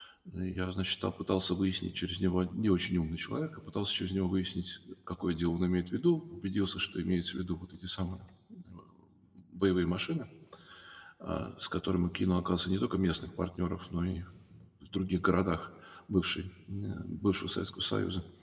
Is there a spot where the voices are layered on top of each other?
No

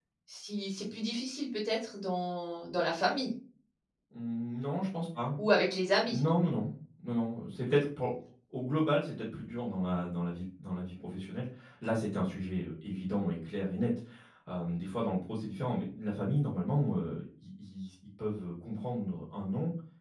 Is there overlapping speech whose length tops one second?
No

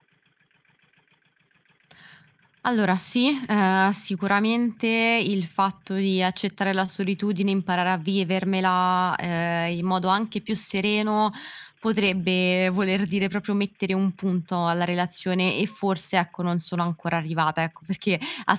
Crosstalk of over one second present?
No

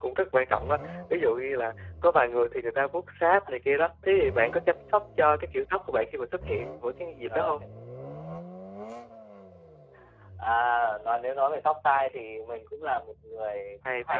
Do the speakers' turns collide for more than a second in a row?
No

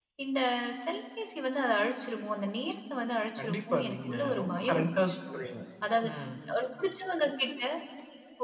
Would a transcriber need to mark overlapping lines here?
Yes, from 3.4 s

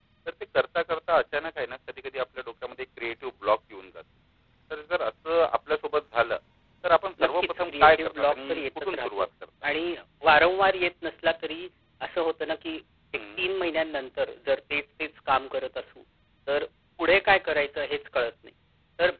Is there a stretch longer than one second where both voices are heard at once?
Yes, from 7.2 s

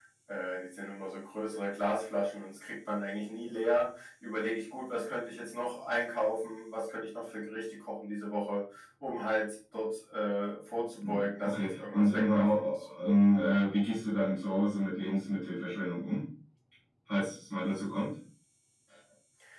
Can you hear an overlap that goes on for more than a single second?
Yes, from 11.0 s

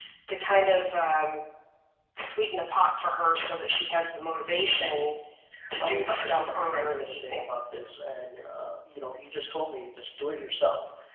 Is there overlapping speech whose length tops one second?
Yes, from 5.8 s

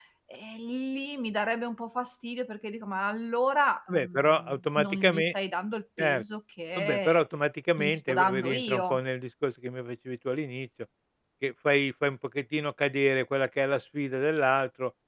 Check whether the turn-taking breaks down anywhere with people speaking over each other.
Yes, from 3.9 s

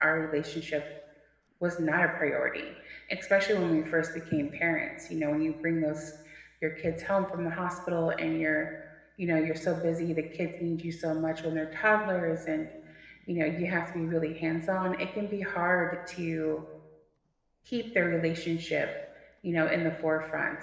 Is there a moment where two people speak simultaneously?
No

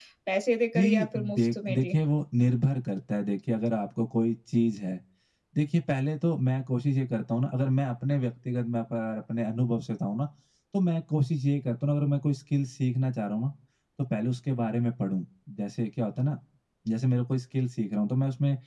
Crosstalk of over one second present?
Yes, from 0.8 s

